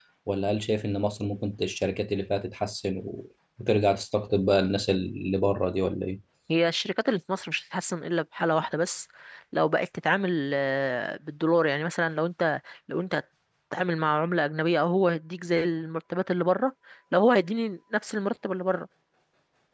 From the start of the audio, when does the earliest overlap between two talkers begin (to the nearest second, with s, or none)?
none